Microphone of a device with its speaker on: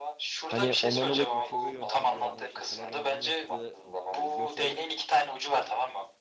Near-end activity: present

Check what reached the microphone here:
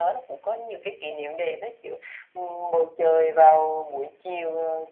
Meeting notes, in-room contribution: none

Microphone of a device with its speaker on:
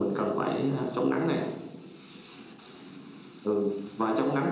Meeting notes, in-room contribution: none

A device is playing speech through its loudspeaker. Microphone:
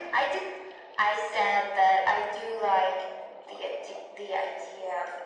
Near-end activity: none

